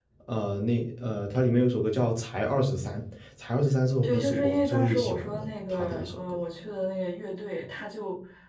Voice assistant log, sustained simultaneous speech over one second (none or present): present